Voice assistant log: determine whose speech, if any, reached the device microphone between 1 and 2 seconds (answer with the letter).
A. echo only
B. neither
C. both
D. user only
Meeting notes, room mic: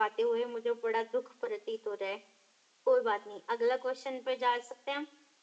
A